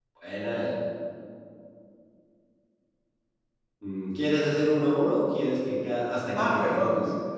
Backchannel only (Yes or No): No